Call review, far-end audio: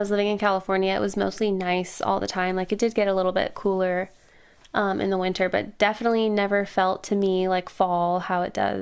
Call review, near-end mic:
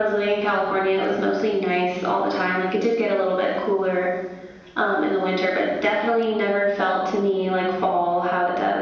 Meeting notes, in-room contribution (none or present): none